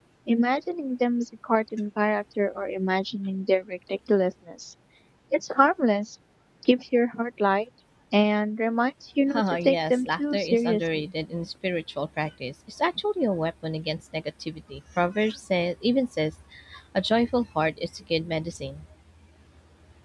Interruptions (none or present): present